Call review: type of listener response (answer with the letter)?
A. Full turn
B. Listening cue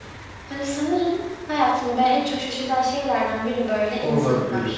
A